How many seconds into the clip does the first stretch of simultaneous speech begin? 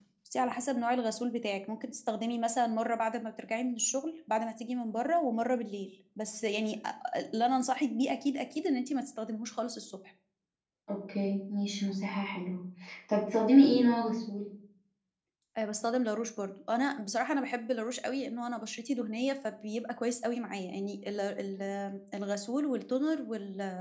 none

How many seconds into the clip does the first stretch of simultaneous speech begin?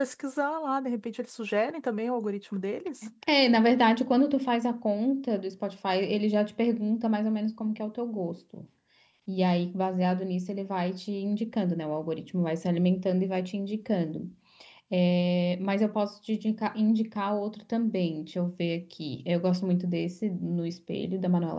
none

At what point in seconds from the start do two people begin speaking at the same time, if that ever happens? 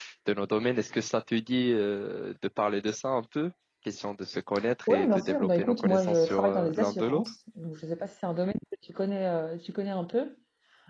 5 s

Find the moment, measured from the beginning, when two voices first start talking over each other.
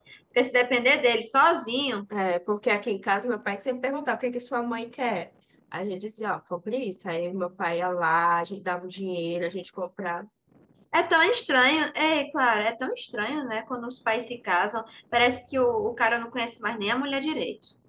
none

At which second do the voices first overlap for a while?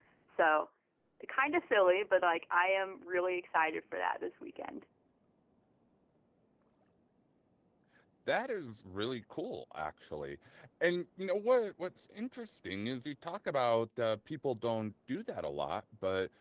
none

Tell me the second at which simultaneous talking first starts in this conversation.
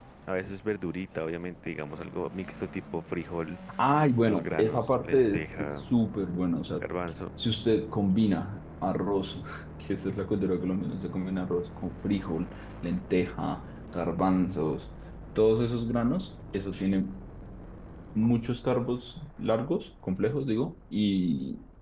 4 s

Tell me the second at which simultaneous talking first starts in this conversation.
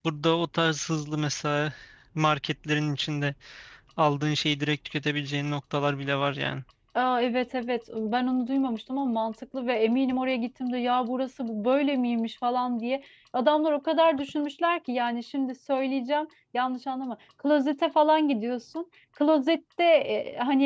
none

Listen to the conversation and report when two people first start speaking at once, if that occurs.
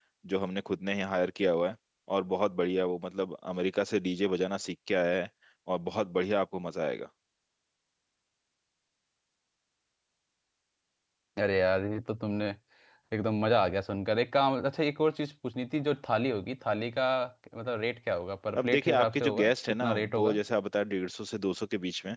19 s

